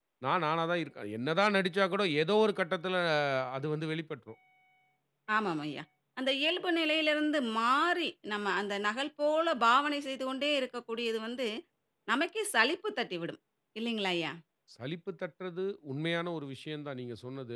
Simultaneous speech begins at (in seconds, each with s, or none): none